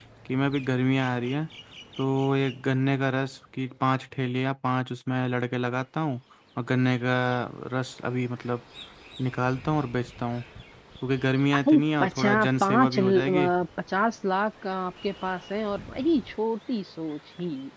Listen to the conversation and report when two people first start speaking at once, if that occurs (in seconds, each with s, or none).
11.7 s